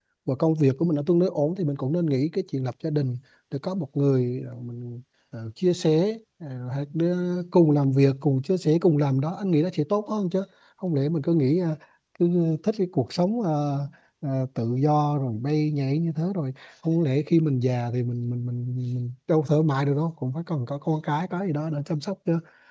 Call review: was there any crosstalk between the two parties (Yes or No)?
No